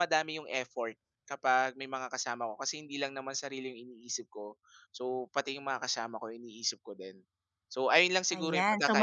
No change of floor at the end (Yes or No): No